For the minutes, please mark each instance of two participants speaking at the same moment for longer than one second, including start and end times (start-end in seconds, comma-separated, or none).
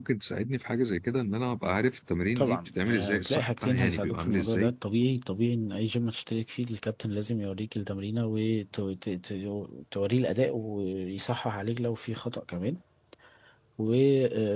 2.4-4.7